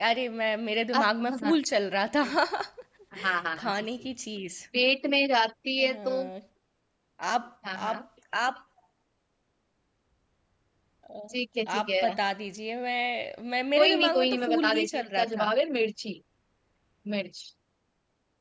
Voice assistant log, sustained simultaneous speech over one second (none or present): present